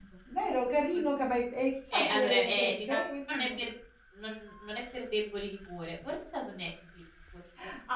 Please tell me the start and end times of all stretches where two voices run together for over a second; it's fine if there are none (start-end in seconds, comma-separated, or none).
1.9-3.6